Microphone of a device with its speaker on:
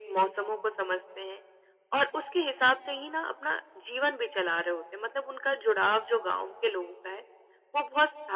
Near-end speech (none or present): none